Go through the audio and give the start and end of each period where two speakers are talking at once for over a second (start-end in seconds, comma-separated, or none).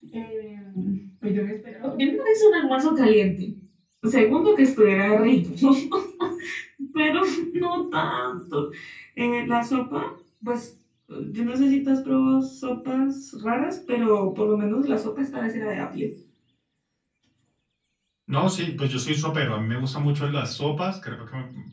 none